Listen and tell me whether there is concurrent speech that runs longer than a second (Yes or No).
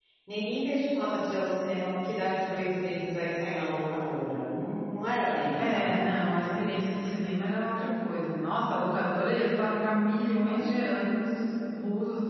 No